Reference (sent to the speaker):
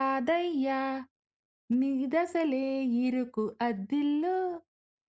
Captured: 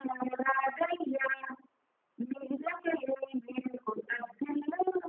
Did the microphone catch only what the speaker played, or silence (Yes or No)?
Yes